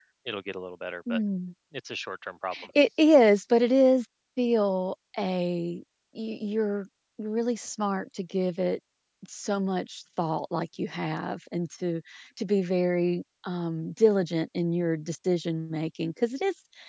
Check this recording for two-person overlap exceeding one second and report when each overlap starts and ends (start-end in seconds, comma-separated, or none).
none